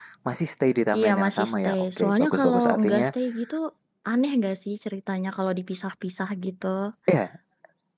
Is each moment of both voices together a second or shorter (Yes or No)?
No